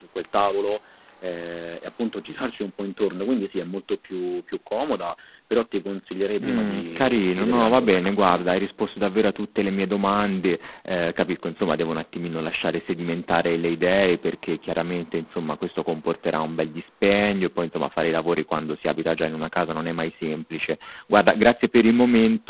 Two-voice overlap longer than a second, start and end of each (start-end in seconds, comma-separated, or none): 6.4-8.4